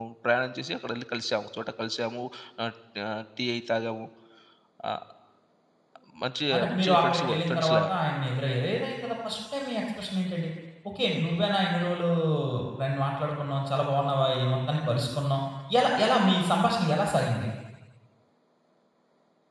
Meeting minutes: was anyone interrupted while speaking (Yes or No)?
Yes